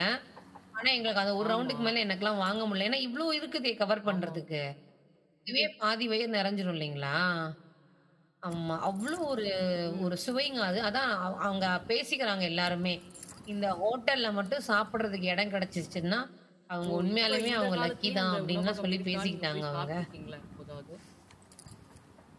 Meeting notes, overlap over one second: present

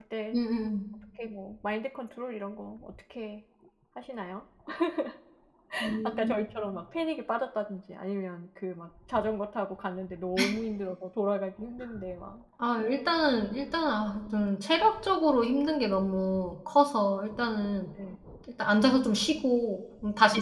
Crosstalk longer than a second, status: none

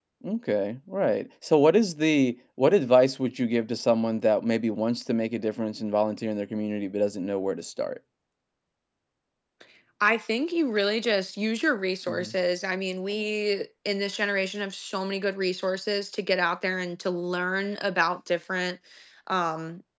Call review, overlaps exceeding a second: none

